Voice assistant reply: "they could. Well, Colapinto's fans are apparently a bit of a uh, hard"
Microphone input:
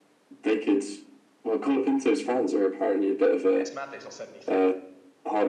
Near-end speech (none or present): present